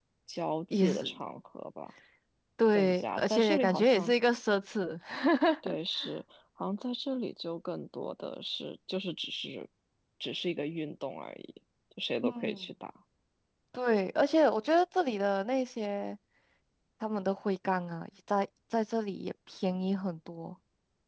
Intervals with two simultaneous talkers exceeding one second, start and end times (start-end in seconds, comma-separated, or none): 2.7-4.1